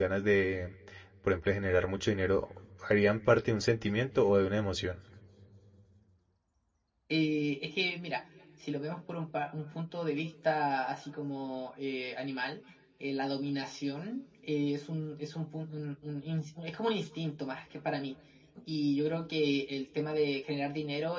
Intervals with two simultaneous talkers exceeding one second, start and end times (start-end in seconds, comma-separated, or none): none